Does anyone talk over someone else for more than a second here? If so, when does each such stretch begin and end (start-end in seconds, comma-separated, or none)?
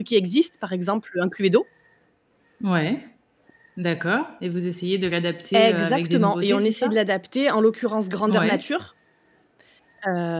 5.5-6.9